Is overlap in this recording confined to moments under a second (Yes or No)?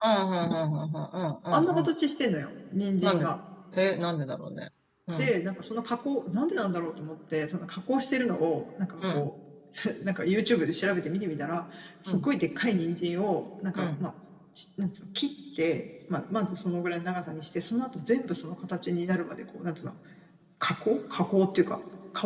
Yes